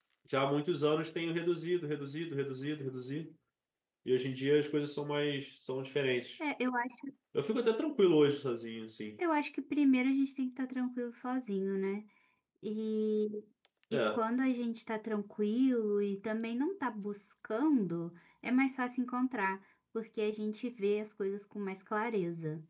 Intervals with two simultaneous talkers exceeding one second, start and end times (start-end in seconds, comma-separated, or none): none